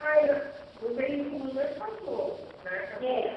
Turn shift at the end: Yes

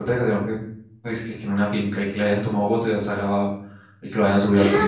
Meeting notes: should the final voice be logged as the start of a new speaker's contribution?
Yes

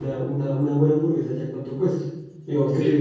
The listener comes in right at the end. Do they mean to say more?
No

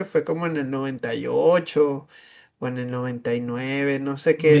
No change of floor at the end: No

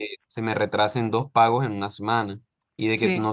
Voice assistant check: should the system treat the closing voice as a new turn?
No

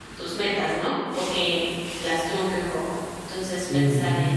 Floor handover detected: No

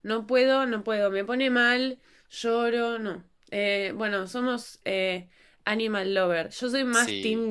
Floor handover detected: No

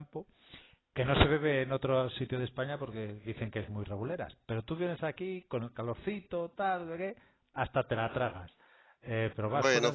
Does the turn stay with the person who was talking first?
Yes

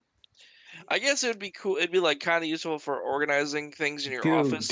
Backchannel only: No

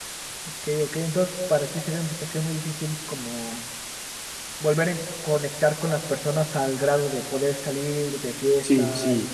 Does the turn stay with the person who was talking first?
No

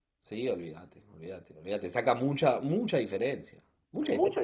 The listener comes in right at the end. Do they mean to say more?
Yes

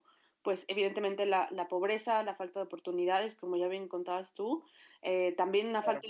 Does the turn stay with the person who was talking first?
Yes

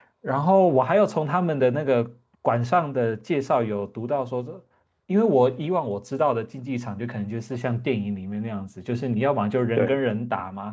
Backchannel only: Yes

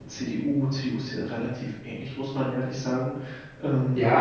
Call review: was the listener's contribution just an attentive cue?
No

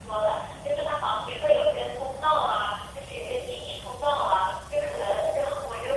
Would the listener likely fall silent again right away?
Yes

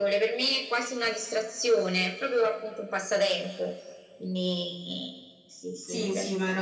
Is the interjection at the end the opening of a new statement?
Yes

